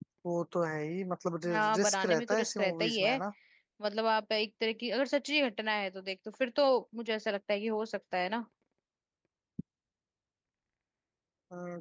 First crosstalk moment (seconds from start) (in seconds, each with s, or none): 1.4 s